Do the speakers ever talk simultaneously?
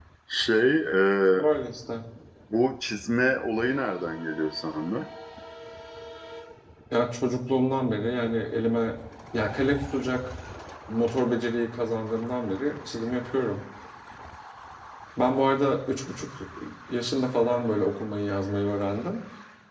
No

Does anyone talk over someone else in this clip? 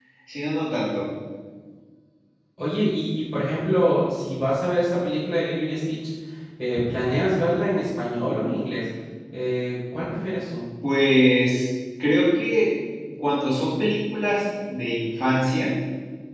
No

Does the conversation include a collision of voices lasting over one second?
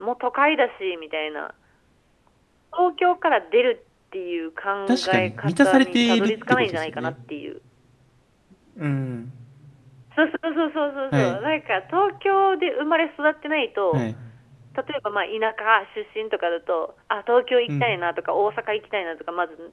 Yes, from 4.9 s

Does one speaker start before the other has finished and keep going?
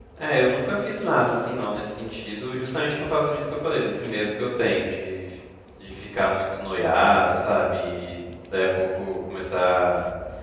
No

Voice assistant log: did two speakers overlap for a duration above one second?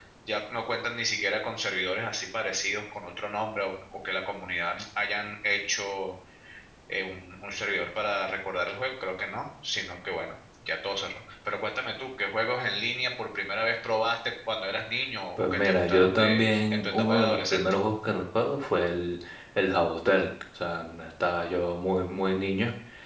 Yes, from 15.4 s

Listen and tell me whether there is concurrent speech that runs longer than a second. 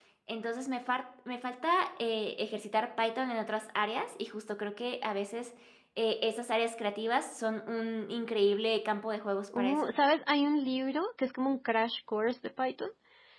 No

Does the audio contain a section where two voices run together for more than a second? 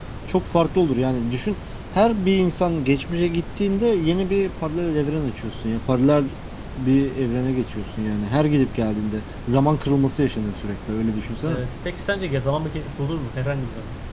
No

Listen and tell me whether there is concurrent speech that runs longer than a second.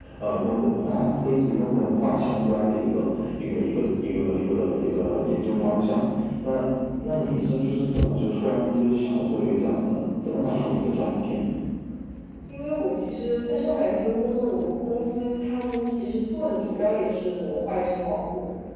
No

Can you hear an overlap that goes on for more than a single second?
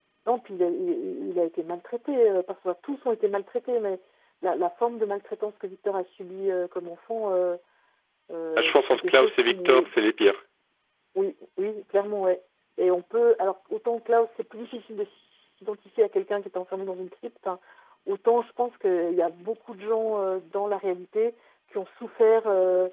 Yes, from 8.6 s

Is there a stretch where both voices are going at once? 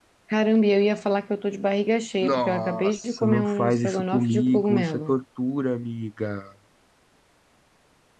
Yes, from 2.2 s

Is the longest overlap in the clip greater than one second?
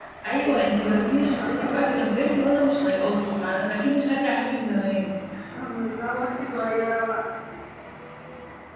Yes, from 0.5 s

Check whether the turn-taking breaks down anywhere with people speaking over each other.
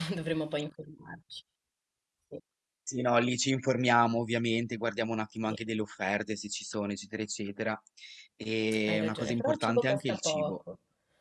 Yes, from 8.9 s

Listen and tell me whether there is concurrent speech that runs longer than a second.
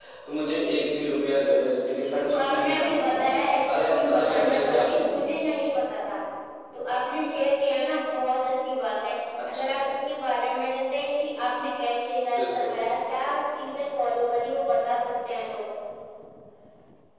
Yes, from 2.0 s

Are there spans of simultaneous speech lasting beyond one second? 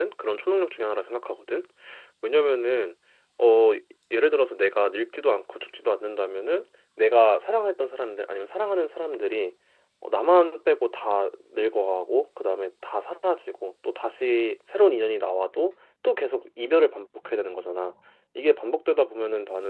No

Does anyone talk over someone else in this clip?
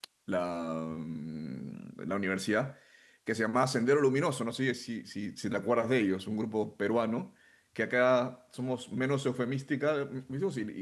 No

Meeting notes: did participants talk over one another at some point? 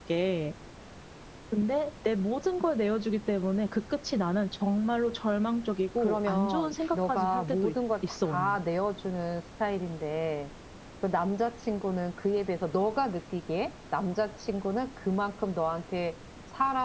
Yes, from 6.0 s

